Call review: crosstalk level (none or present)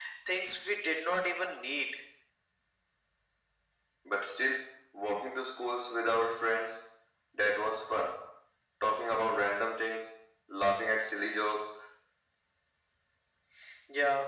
none